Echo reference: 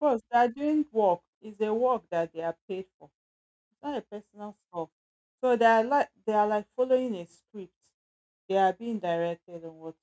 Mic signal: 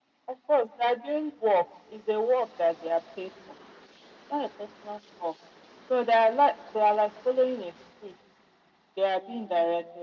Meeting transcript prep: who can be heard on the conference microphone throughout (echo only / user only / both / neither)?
echo only